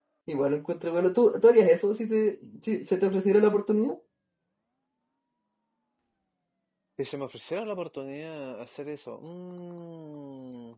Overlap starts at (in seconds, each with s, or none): none